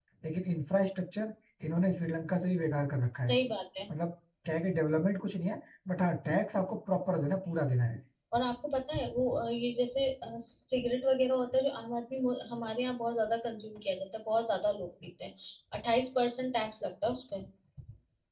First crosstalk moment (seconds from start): none

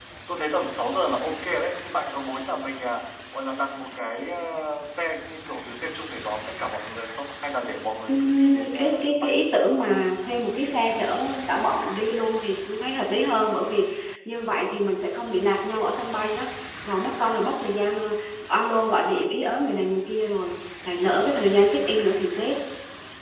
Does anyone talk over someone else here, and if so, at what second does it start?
8.1 s

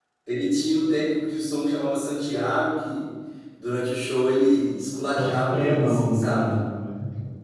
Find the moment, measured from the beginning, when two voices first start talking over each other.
5.2 s

